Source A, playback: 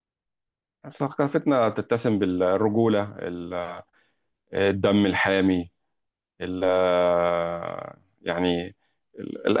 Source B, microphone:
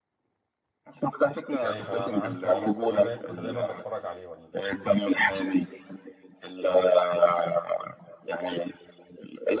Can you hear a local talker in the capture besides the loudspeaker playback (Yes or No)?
Yes